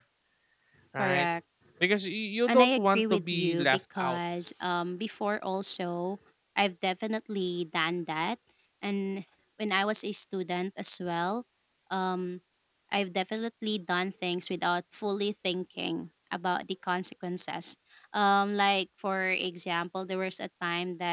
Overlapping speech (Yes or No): Yes